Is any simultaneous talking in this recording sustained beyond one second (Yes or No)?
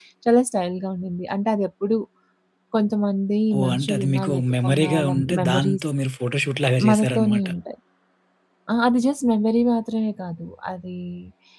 Yes